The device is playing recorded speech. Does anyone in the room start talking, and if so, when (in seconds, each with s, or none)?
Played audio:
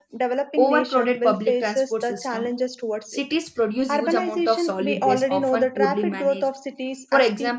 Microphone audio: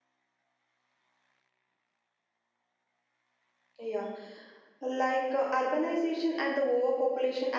3.8 s